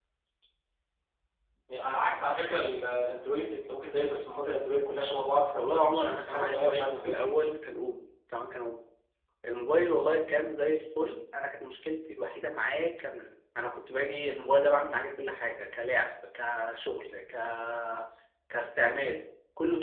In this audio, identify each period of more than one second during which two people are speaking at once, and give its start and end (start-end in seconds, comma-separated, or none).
5.6-7.3